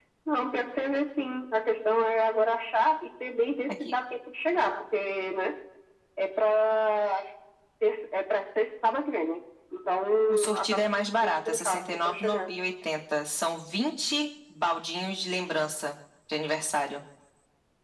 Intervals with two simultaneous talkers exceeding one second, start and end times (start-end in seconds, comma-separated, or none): 10.3-12.5